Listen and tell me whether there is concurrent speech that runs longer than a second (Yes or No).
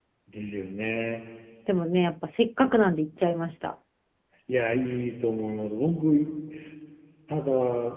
No